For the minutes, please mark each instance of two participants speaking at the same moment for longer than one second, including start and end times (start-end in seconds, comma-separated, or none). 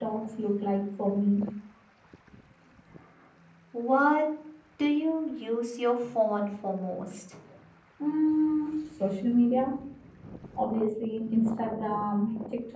none